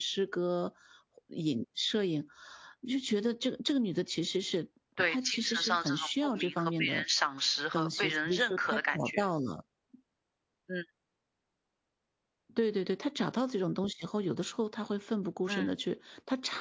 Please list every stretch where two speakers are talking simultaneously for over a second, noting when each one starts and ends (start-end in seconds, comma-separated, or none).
5.0-7.0, 7.7-9.2